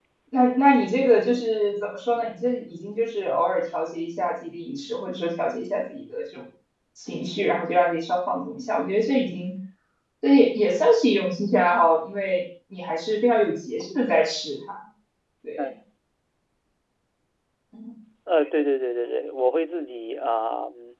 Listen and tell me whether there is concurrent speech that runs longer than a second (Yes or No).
No